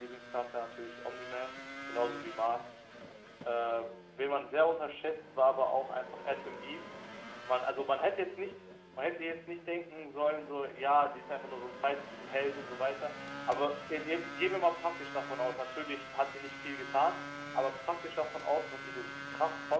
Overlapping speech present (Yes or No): No